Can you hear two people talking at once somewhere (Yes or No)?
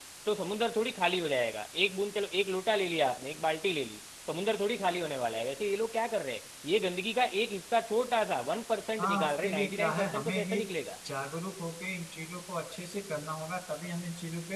Yes